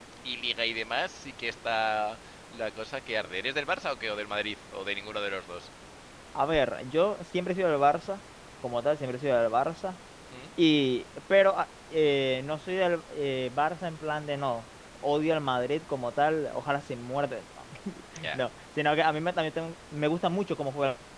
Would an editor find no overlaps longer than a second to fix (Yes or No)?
Yes